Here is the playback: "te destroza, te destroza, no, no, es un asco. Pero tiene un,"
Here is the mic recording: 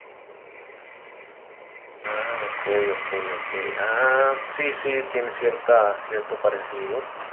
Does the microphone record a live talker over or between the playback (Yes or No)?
Yes